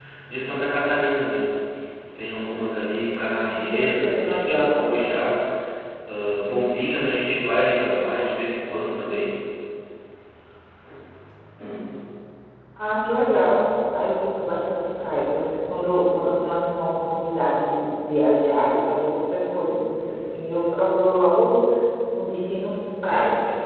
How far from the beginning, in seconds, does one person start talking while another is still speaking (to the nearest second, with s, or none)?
4 s